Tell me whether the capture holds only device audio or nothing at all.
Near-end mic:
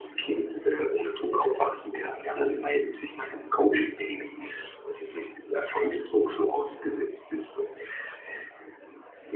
Yes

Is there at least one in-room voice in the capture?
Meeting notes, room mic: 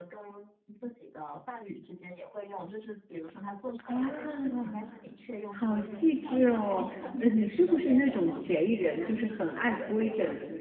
Yes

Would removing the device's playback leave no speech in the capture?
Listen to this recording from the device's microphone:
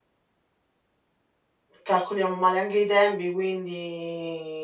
No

